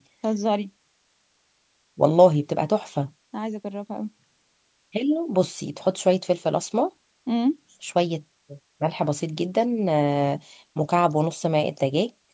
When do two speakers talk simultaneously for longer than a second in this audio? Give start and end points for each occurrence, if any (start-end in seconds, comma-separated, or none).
none